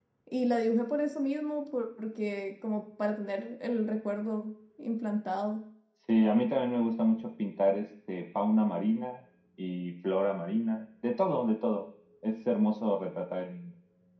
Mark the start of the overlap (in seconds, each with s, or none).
none